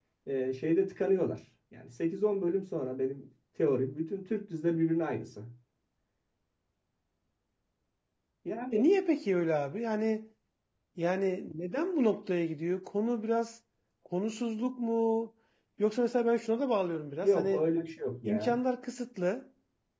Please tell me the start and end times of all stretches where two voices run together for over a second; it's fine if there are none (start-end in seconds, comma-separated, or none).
none